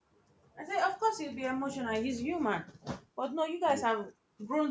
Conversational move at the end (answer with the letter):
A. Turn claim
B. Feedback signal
B